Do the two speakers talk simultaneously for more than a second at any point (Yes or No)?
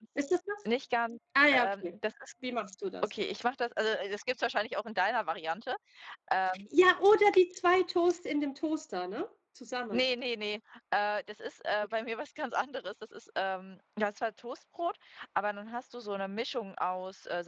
No